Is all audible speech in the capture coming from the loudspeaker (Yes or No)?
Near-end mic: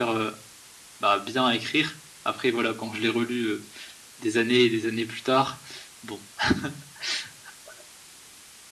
Yes